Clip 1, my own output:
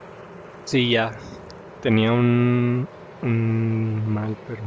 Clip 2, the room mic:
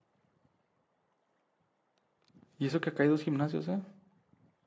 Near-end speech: present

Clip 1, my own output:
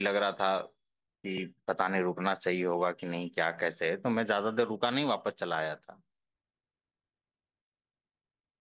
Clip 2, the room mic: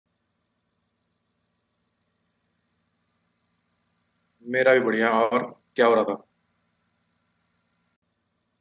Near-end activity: present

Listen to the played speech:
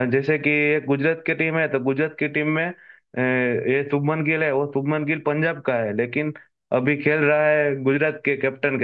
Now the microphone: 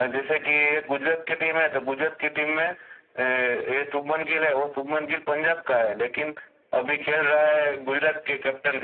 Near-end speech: none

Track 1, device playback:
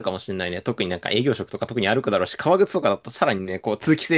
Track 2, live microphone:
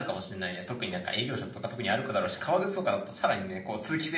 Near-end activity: none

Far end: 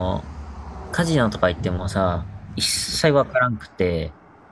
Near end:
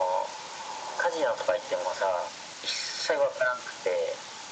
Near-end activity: none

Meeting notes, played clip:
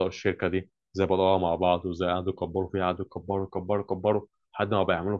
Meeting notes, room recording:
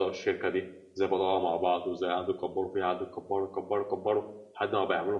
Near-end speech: none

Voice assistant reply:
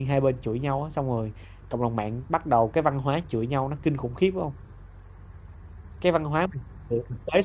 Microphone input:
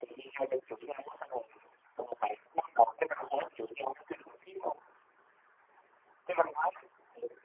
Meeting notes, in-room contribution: none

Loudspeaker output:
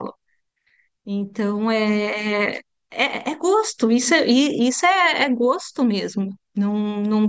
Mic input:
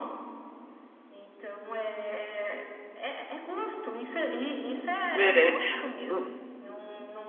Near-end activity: present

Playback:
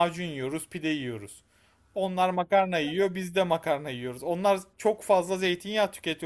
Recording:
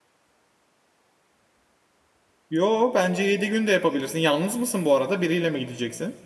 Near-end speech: present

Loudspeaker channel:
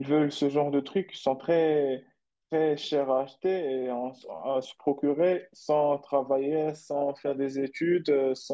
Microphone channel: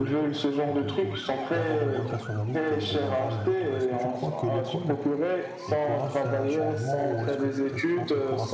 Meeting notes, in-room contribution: present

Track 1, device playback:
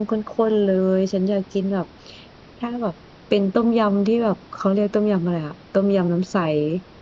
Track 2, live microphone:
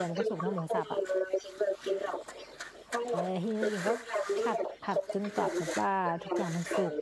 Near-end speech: present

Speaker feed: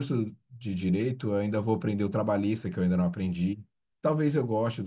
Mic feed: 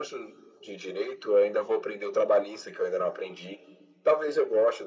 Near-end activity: none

